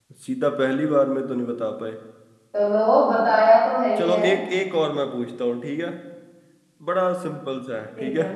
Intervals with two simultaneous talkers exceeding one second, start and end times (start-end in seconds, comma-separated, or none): none